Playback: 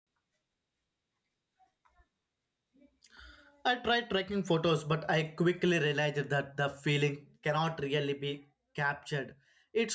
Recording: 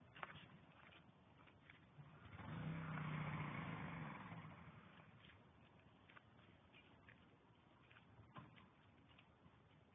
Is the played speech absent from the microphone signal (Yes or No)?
Yes